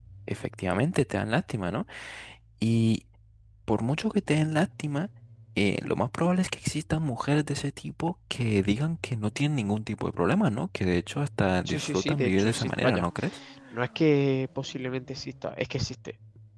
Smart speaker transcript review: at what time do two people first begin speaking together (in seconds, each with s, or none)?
11.7 s